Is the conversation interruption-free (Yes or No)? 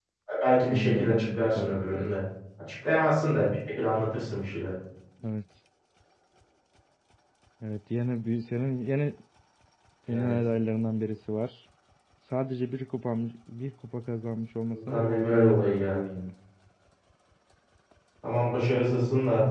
No